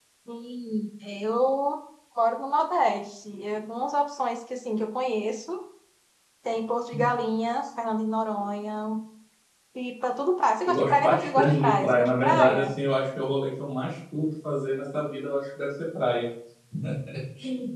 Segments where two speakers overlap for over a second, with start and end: 10.7-12.7

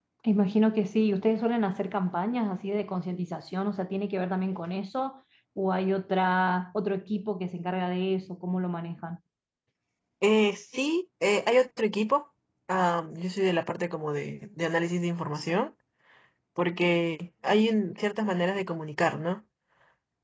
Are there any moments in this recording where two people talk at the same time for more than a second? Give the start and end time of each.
none

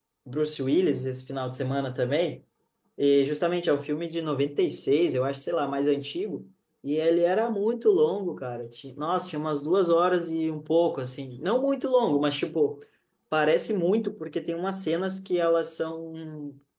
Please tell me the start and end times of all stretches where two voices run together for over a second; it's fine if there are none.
none

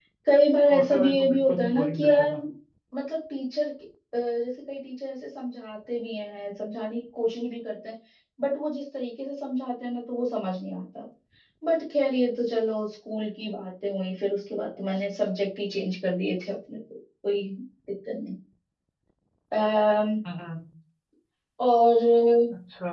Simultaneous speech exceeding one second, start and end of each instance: 0.7-2.3

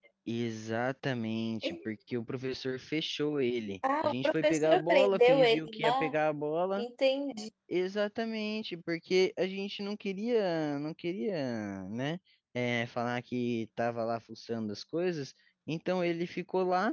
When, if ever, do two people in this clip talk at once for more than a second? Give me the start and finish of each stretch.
4.0-6.1

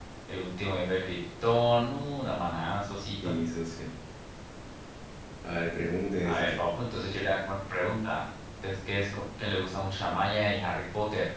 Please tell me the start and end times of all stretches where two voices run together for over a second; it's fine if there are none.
none

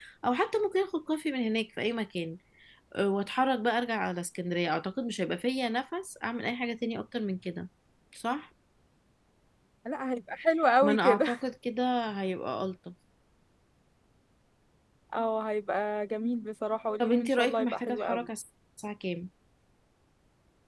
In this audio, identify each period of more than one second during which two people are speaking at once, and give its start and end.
17.0-18.3

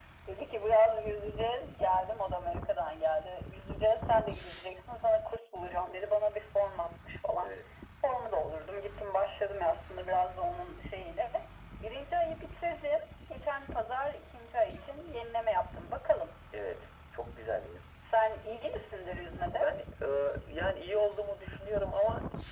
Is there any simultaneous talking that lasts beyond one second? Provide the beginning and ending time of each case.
none

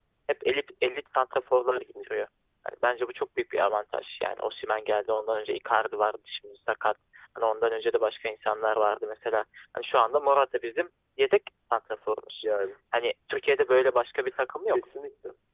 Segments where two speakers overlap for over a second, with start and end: none

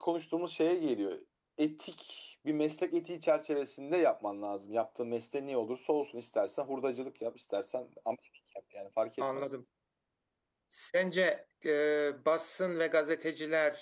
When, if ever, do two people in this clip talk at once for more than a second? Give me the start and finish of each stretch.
none

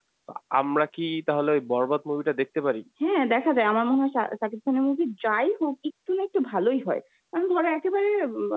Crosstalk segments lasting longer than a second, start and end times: none

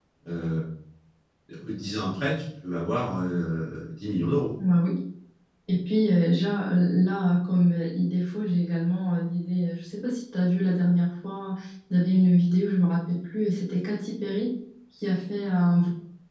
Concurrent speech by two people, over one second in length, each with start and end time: none

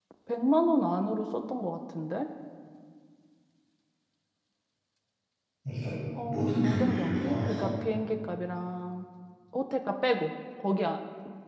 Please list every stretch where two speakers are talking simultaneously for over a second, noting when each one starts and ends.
6.3-7.7

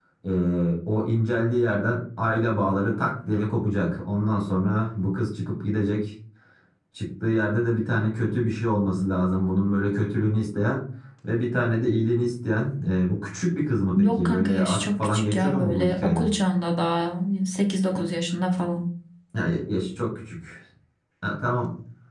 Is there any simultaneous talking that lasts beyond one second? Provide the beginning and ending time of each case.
13.9-16.3

